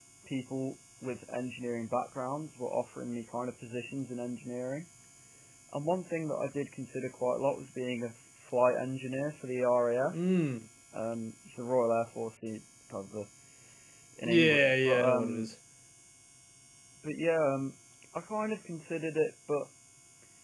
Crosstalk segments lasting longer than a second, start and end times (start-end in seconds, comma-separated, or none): 14.2-15.5